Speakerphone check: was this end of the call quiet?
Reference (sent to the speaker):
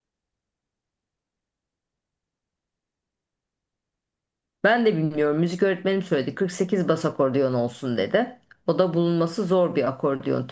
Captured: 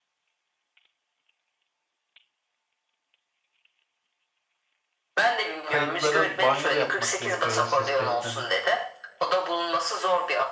No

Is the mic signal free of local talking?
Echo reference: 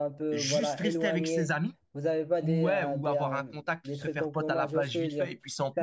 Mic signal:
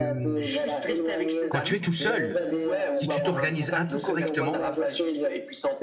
No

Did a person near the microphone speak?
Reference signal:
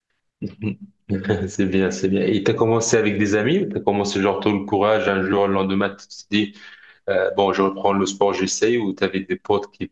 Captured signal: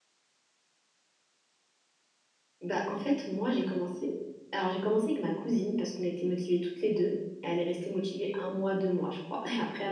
Yes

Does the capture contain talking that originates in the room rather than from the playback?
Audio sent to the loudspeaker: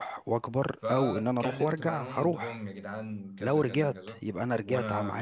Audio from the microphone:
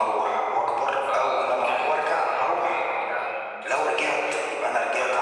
No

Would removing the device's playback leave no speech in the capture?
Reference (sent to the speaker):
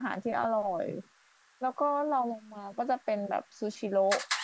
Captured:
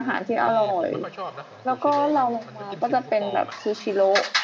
No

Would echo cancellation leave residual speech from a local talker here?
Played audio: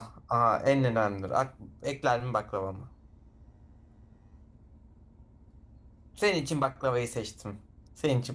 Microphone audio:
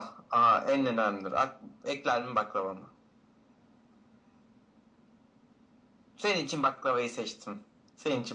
No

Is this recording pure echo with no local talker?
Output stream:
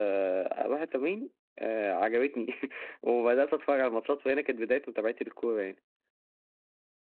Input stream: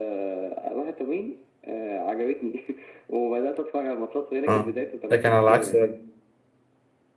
No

